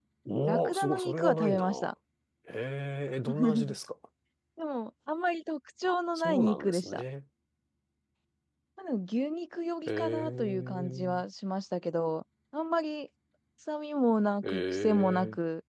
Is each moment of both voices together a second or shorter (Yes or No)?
No